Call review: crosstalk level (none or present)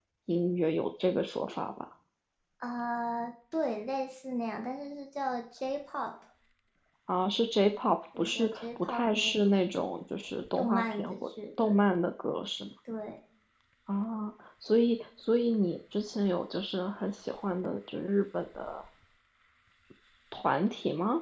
present